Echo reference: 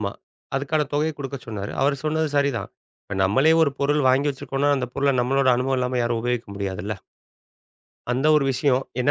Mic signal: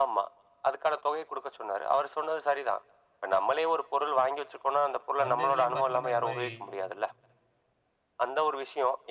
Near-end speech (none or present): present